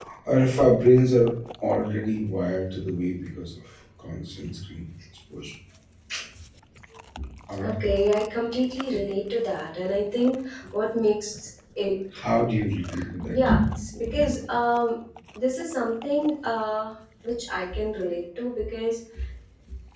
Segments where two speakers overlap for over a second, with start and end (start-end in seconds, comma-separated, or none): none